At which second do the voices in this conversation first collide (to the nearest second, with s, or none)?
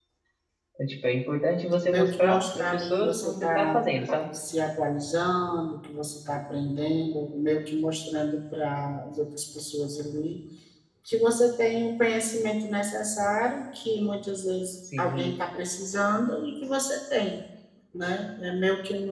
2 s